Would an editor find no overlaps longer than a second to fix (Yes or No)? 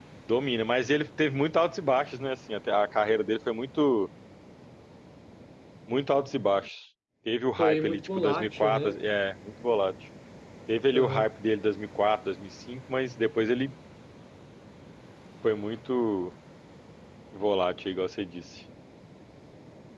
No